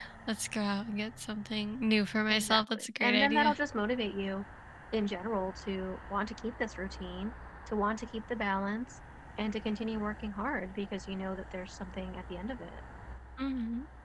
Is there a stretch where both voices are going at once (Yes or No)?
Yes